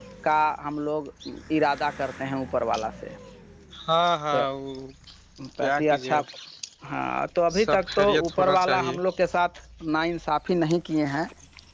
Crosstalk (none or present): present